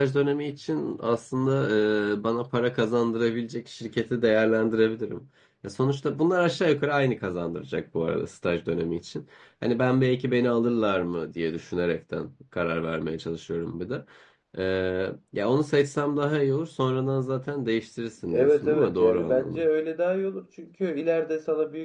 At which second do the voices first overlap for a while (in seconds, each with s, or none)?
18.2 s